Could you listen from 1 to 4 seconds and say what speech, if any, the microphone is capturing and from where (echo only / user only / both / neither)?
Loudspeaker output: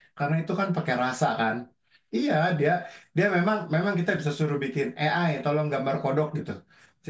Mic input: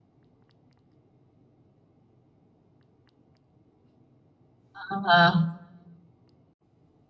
neither